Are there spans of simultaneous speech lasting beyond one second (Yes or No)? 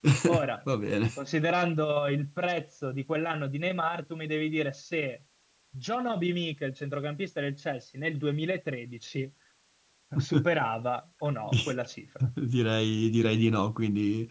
No